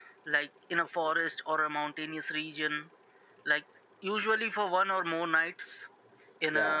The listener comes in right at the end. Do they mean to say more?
No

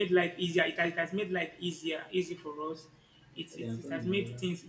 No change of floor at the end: Yes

